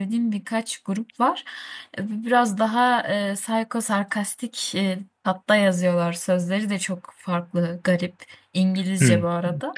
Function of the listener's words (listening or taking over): taking over